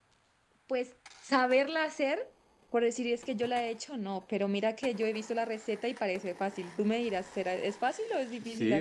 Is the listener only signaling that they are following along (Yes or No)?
No